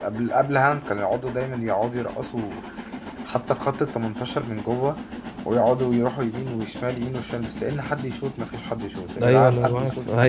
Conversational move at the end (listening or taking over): taking over